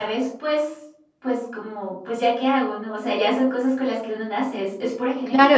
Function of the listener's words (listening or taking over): taking over